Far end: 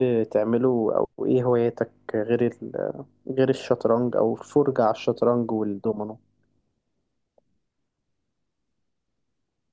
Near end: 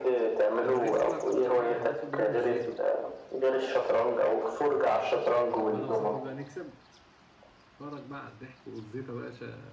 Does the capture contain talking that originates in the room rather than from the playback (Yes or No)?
Yes